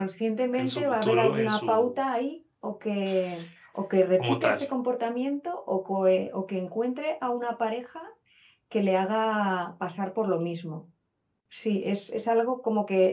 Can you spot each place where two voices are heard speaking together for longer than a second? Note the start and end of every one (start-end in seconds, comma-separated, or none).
0.6-1.9